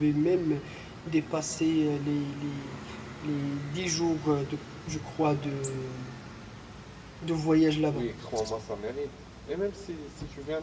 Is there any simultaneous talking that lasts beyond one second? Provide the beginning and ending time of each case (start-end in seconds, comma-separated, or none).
none